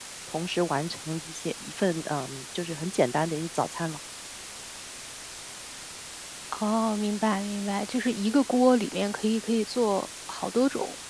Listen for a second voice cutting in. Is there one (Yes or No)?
No